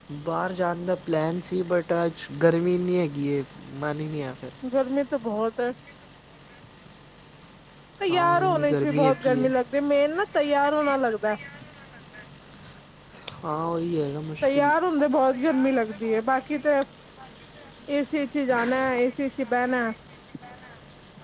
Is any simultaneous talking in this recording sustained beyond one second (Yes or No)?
Yes